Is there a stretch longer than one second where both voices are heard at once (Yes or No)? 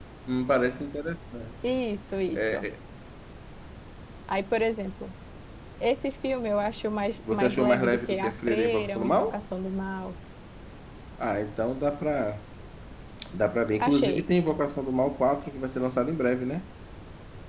Yes